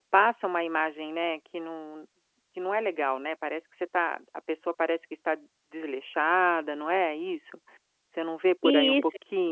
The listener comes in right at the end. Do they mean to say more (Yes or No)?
Yes